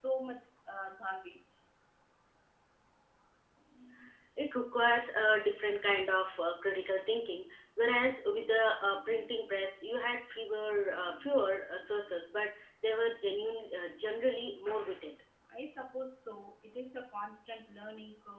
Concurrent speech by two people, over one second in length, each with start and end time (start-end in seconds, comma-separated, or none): none